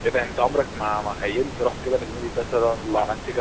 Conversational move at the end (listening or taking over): listening